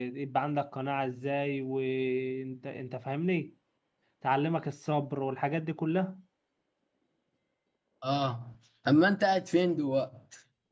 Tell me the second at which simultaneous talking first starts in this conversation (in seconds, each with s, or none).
none